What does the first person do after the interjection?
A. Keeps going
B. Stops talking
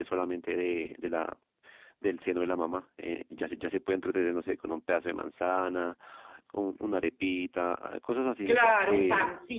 B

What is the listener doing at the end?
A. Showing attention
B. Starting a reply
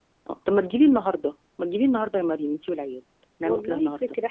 B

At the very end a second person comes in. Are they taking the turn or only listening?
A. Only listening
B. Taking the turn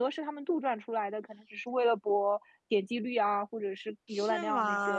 B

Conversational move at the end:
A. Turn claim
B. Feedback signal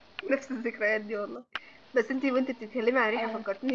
B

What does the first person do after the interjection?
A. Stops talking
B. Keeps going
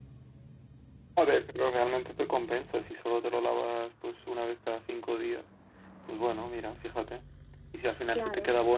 B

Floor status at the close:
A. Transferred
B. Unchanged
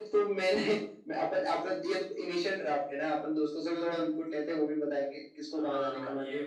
A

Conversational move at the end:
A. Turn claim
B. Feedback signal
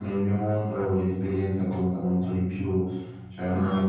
B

